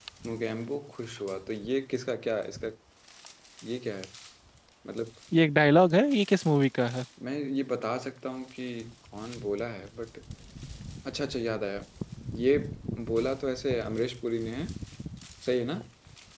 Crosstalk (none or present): none